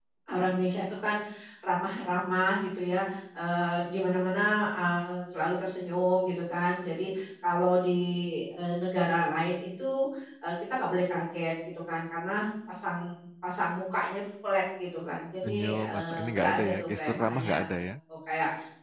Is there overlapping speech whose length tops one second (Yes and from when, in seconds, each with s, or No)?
Yes, from 15.4 s